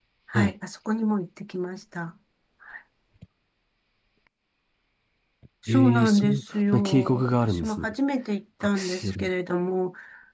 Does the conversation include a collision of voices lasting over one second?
Yes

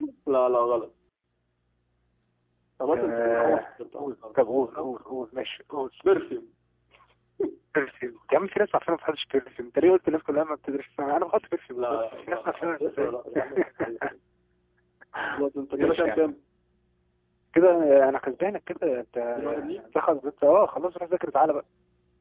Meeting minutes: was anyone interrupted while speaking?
Yes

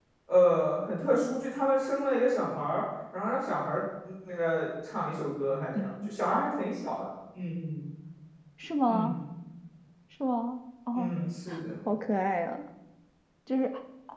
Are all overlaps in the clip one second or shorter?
Yes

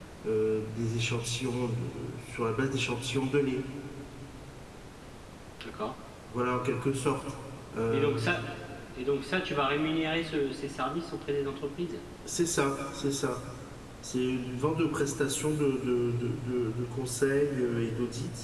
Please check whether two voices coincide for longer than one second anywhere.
No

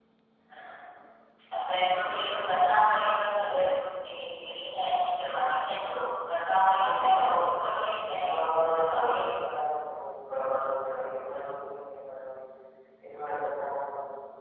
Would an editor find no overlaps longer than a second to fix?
No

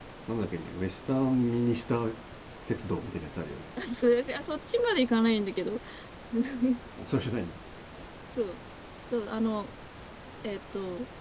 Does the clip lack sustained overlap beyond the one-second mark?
Yes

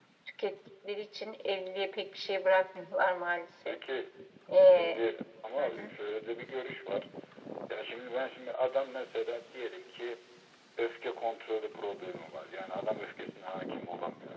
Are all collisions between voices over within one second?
Yes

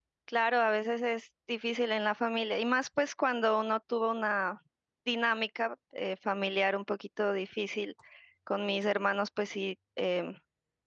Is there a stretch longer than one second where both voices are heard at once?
No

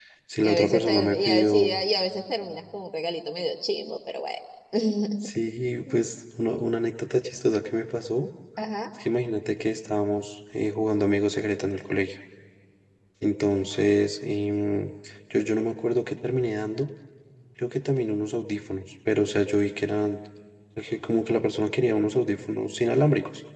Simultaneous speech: Yes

